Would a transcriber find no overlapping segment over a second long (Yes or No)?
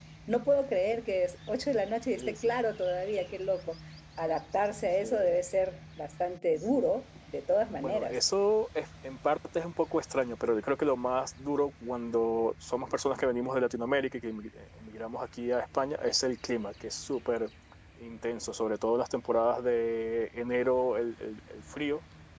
Yes